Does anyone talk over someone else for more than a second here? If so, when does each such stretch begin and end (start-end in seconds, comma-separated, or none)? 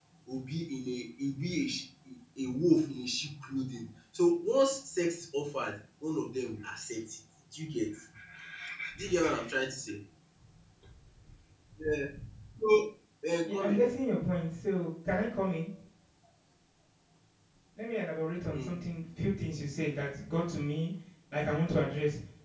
none